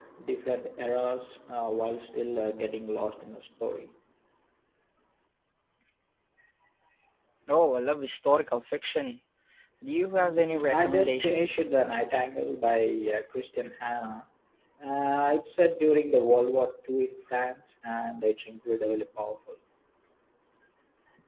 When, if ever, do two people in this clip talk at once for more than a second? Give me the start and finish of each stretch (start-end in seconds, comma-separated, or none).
10.2-11.7